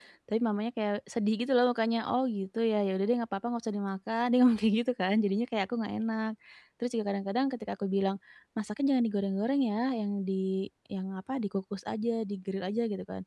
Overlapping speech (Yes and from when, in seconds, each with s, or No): No